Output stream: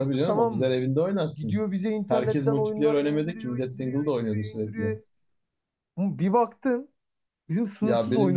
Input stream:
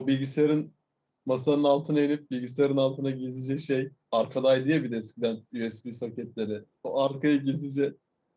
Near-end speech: present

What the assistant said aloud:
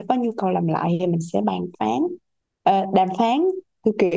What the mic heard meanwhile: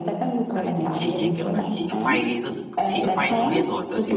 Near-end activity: present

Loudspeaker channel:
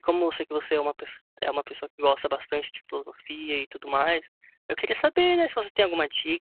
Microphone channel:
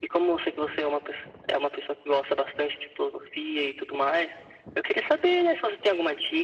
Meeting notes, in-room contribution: none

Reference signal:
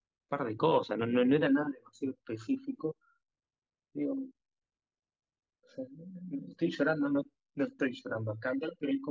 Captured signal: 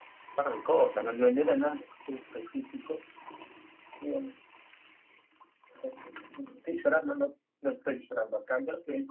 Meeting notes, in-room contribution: none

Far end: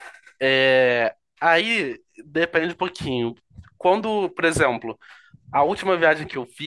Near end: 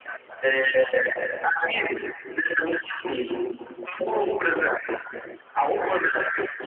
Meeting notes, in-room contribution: none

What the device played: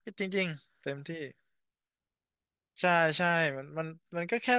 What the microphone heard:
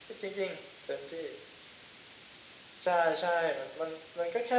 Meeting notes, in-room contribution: none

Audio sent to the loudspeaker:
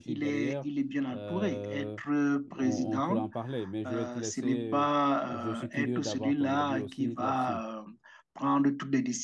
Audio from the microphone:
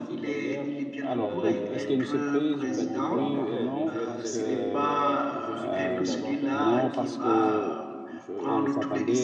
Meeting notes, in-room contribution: present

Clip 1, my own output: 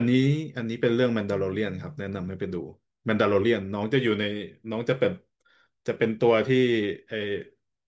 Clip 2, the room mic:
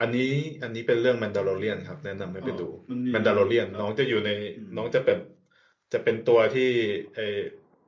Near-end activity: present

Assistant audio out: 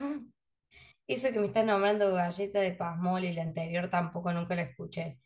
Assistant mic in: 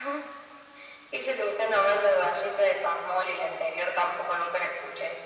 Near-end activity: none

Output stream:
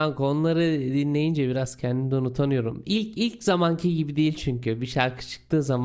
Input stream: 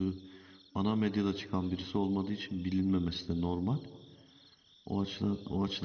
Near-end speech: present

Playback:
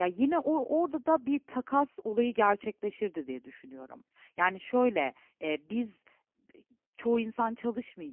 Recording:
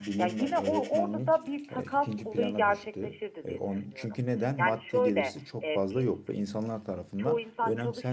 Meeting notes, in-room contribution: present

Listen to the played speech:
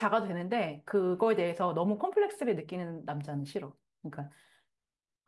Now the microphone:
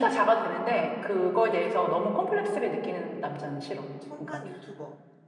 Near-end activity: present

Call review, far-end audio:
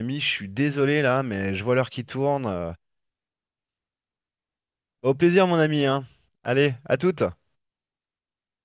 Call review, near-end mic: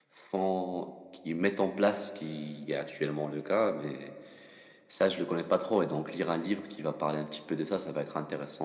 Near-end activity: present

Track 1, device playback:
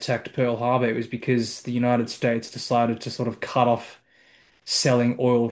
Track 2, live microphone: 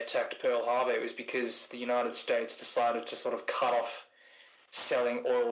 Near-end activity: none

